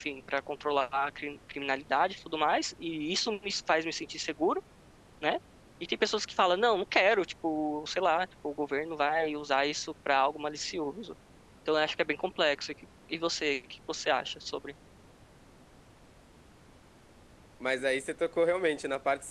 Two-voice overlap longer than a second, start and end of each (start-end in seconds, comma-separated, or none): none